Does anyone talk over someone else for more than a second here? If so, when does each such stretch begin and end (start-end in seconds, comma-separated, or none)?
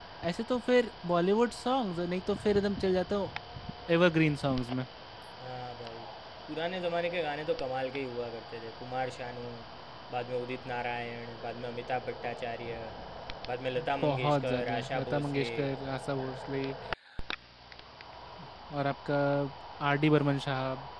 14.0-15.5